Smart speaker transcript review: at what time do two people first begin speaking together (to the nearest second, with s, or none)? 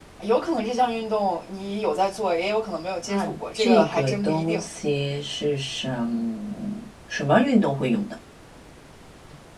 3 s